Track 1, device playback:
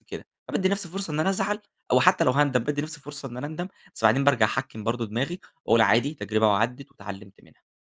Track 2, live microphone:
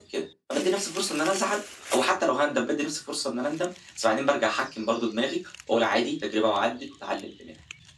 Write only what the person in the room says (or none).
none